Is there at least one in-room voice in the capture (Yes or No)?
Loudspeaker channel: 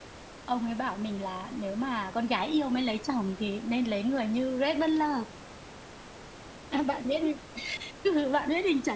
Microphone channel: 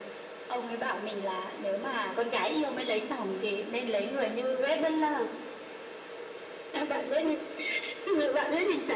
Yes